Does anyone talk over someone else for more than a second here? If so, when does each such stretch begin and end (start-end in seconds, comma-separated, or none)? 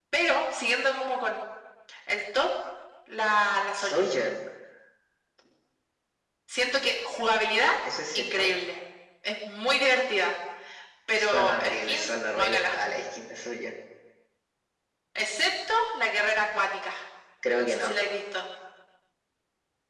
11.3-12.8